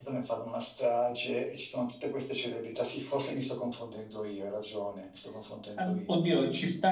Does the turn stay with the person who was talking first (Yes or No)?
No